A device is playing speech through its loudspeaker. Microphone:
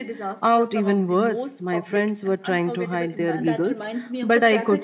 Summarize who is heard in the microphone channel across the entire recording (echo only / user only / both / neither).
both